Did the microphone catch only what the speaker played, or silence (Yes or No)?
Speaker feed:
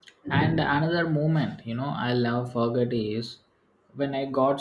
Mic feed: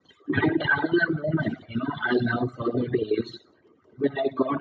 Yes